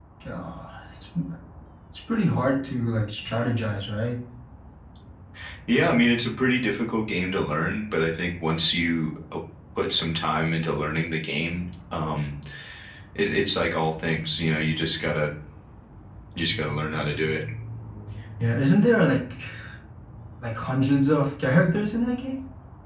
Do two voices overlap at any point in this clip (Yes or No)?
No